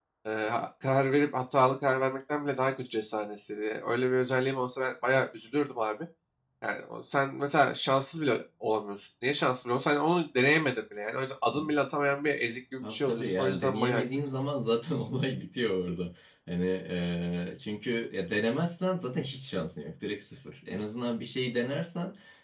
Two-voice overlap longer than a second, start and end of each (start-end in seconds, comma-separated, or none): 12.8-14.0